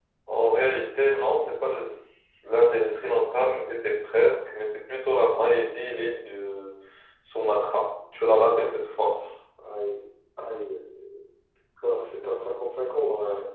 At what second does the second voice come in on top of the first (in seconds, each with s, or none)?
none